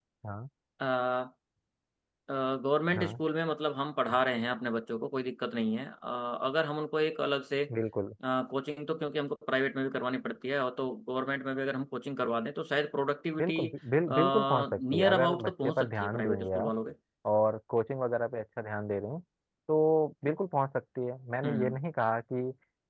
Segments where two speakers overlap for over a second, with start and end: 14.1-16.7

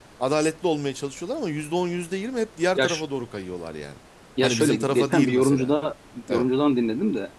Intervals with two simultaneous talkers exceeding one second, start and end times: 4.4-5.7

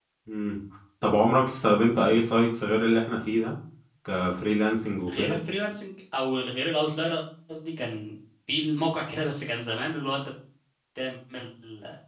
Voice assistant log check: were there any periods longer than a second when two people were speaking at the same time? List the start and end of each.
none

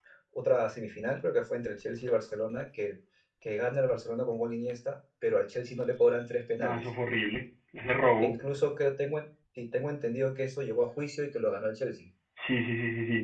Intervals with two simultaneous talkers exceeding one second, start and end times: none

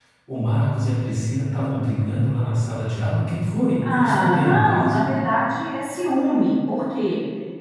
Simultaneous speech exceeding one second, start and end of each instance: 3.8-5.1

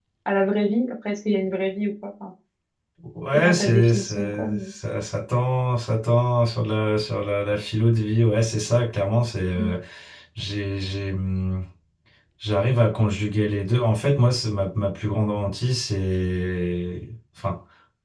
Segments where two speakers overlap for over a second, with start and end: 3.3-4.7

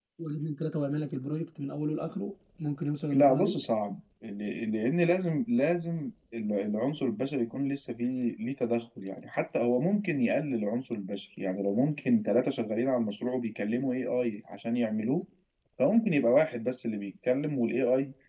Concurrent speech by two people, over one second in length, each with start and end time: none

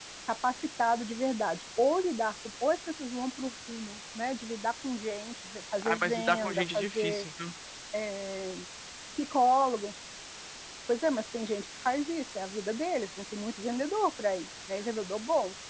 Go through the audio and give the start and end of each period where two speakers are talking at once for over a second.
5.8-7.2

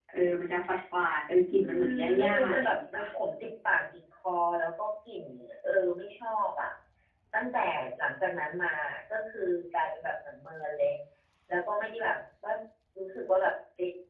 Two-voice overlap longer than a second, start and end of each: 1.6-3.1

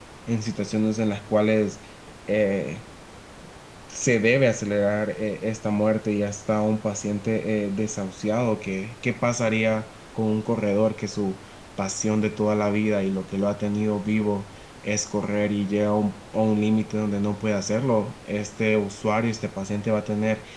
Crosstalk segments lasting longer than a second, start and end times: none

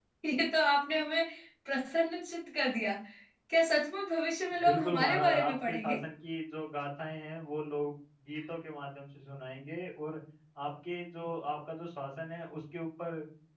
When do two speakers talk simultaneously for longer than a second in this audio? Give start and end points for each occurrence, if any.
4.6-6.0

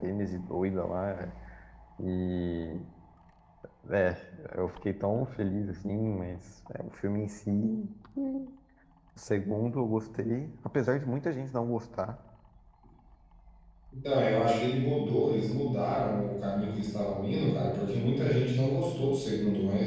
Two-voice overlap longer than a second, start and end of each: none

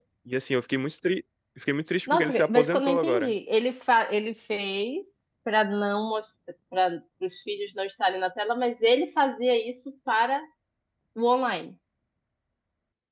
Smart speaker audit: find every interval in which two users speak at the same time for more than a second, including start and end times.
2.1-3.3

